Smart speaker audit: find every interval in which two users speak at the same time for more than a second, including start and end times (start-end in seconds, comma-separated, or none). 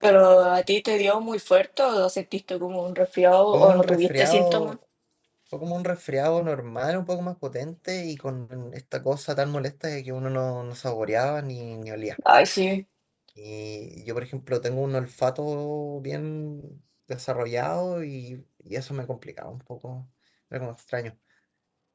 3.5-4.8